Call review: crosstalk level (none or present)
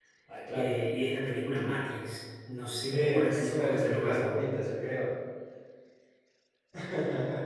present